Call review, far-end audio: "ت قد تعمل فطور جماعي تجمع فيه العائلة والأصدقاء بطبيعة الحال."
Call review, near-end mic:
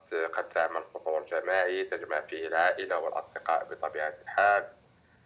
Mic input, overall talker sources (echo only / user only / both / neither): echo only